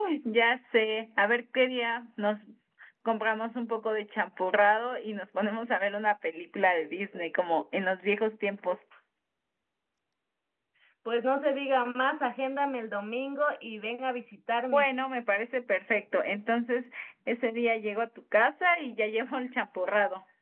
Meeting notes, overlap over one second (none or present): none